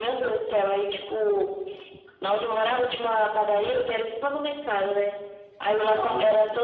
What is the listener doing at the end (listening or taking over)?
listening